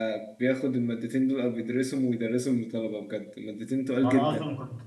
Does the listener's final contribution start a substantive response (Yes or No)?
Yes